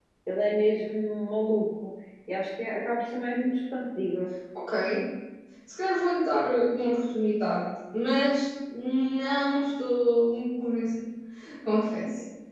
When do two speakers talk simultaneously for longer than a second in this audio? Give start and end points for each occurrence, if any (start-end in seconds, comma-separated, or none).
none